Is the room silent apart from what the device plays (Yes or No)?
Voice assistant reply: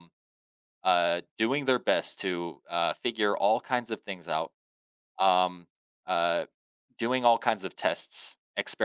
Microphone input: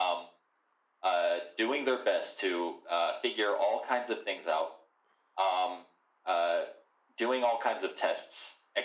Yes